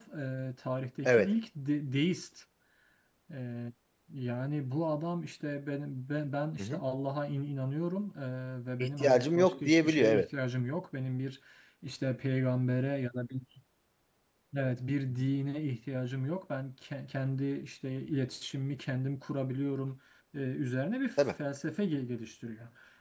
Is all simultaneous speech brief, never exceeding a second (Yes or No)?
No